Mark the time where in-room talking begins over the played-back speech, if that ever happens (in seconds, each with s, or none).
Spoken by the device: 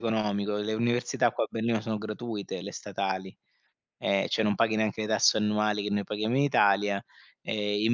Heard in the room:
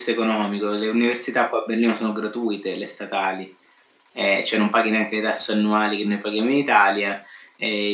none